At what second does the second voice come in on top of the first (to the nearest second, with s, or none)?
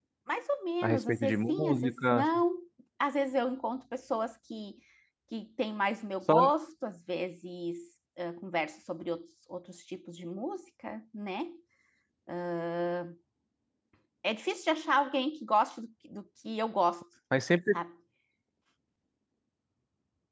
1 s